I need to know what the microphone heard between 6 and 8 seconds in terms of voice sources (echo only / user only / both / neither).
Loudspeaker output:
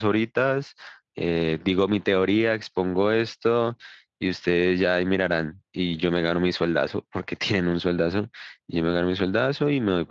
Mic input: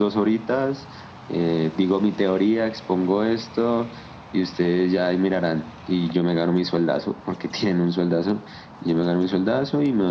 echo only